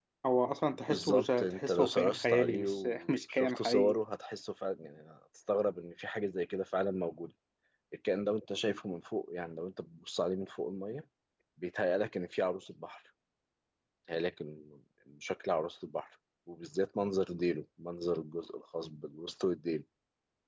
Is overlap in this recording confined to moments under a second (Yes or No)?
No